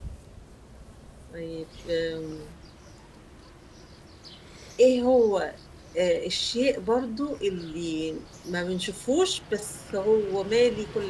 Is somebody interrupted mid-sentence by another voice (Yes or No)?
No